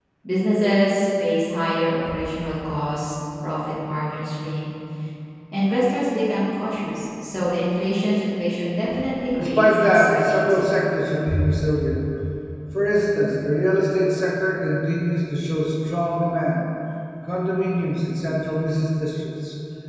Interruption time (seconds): 9.4 s

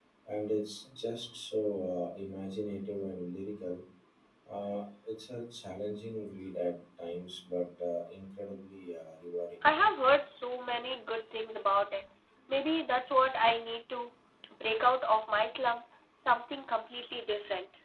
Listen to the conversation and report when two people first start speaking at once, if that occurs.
none

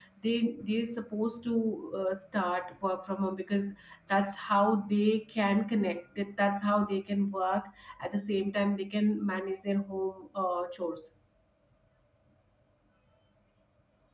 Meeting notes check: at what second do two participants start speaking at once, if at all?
none

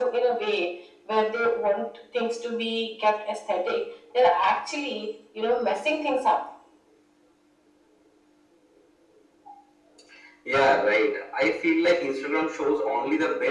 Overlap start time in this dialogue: none

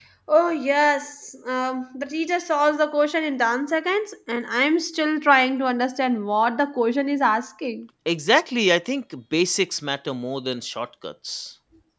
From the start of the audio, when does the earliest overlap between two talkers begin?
none

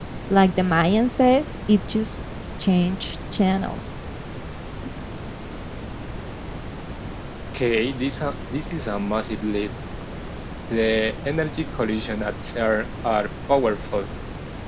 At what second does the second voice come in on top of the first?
none

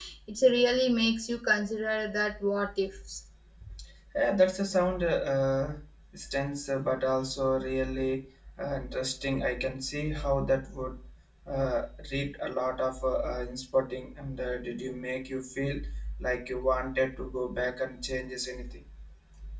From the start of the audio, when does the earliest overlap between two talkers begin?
none

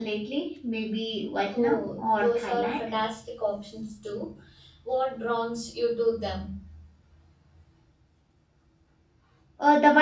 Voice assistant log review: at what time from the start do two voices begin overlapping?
1.5 s

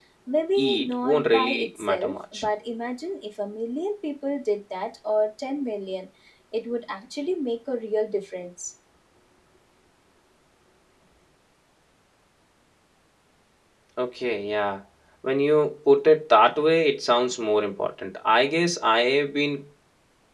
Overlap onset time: 0.6 s

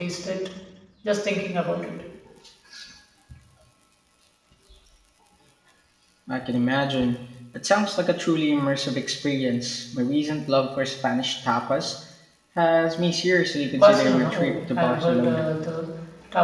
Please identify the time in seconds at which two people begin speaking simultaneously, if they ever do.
13.8 s

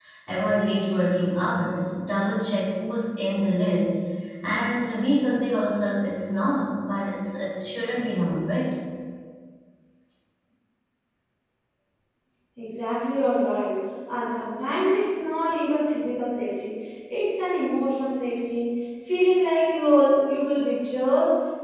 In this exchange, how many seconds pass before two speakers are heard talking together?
none

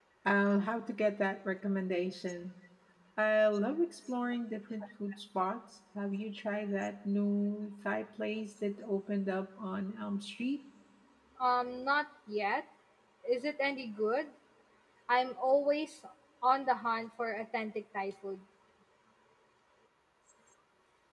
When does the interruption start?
none

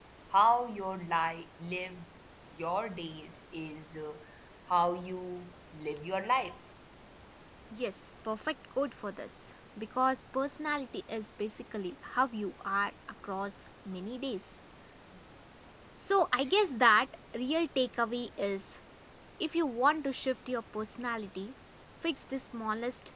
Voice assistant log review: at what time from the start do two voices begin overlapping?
none

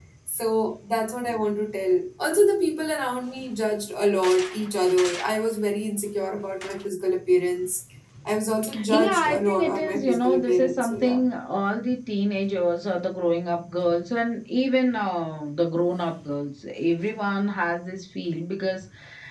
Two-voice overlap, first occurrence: 8.9 s

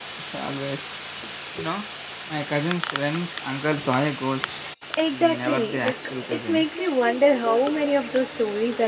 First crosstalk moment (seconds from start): 5.1 s

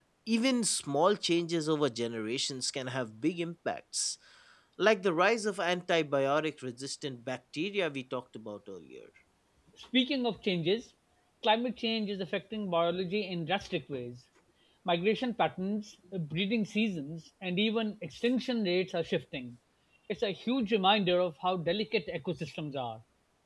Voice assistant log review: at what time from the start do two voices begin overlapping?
none

